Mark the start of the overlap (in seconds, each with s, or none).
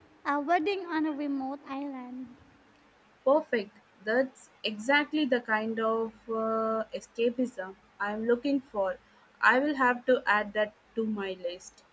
none